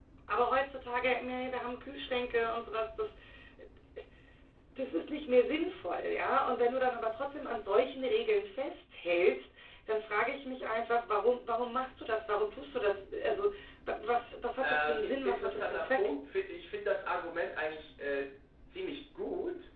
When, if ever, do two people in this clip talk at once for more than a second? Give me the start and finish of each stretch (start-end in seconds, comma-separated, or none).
14.6-16.0